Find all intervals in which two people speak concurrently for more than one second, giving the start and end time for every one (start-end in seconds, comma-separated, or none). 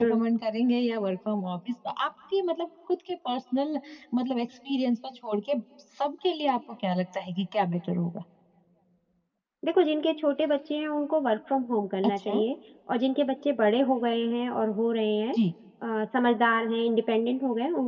none